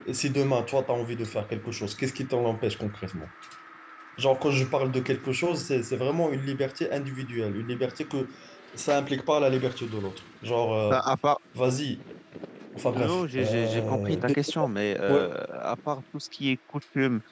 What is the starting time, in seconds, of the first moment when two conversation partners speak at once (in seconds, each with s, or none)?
13.0 s